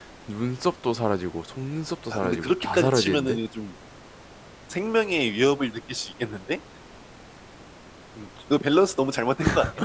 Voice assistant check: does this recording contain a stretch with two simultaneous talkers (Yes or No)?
Yes